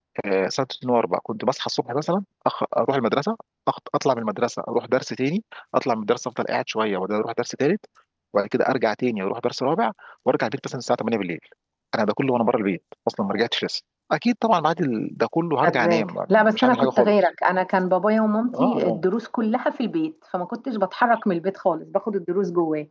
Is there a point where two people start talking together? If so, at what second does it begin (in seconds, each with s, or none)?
15.6 s